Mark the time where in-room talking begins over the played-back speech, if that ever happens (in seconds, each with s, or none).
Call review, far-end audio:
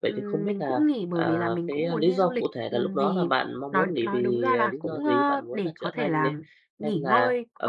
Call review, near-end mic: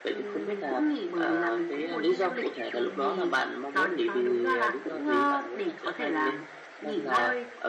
none